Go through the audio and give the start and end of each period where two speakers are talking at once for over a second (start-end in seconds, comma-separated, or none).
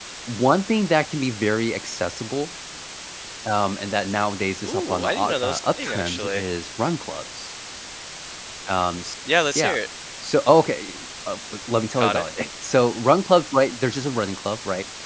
4.7-6.4